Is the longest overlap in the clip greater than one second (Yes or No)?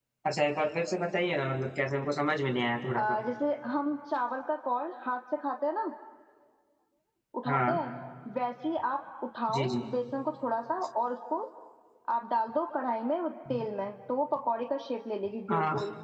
No